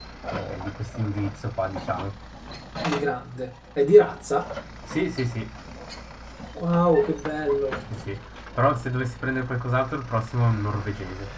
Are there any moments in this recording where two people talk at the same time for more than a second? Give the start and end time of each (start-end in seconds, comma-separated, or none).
none